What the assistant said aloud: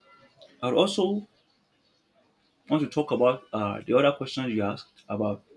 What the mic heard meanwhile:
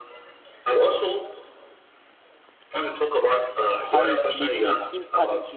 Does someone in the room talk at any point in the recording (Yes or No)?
Yes